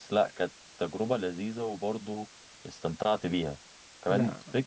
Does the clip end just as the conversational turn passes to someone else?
No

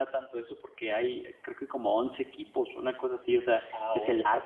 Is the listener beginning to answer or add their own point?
No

